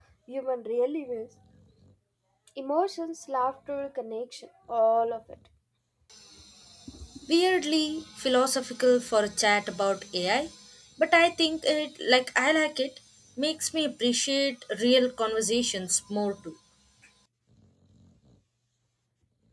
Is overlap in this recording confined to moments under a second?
Yes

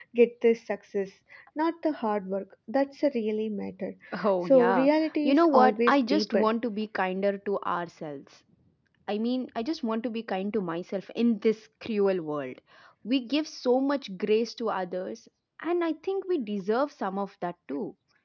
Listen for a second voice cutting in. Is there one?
Yes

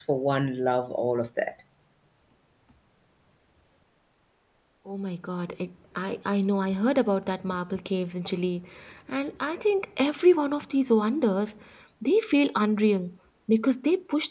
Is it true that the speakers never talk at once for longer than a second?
Yes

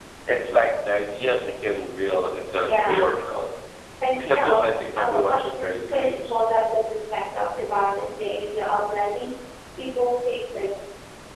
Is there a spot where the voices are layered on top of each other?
Yes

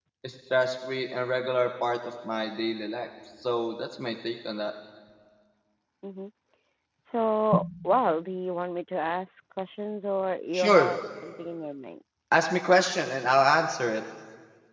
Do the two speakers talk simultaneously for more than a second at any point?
No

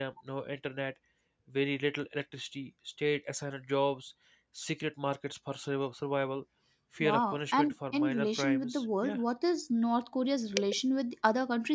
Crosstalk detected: Yes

